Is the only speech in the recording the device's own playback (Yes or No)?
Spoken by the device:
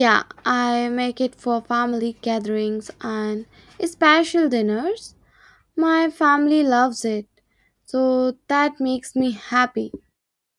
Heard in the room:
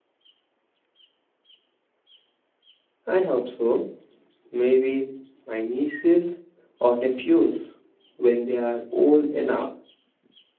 No